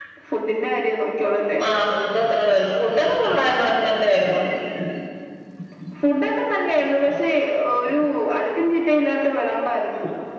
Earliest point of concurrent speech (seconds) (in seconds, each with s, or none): none